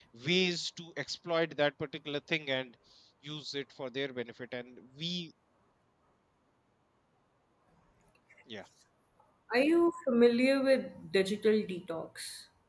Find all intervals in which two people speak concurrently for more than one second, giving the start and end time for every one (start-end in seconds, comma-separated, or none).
none